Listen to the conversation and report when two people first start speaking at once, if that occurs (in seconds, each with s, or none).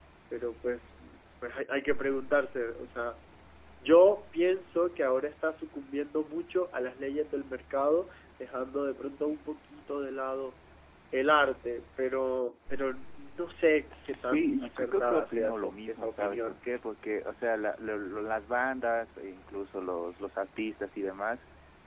13.9 s